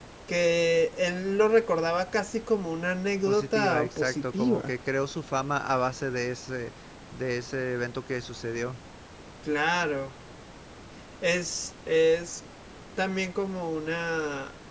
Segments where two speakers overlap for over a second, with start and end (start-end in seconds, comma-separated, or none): 3.3-4.7